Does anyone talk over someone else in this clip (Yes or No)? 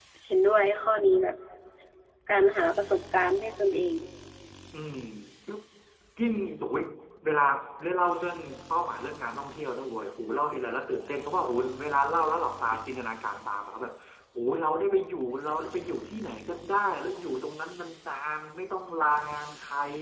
No